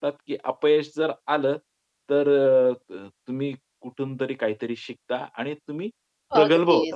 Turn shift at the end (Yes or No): Yes